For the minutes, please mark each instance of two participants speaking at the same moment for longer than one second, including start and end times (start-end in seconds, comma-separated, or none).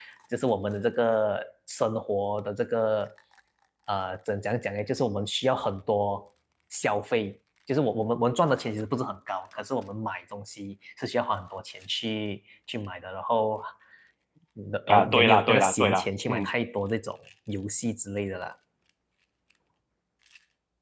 14.9-16.5